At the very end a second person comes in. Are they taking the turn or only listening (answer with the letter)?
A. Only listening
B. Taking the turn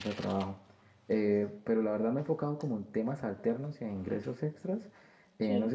A